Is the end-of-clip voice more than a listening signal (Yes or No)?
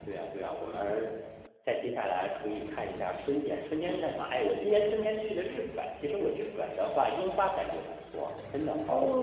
Yes